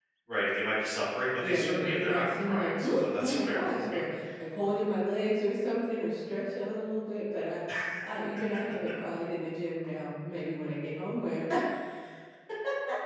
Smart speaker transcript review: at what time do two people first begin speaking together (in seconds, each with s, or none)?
1.4 s